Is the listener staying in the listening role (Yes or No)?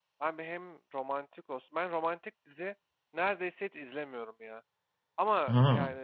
Yes